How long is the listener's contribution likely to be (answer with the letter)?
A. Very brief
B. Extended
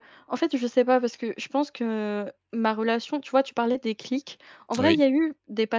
A